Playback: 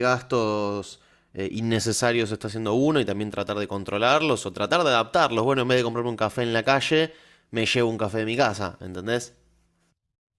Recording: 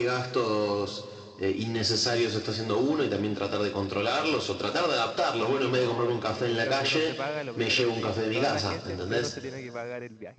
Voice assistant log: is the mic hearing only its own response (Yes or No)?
No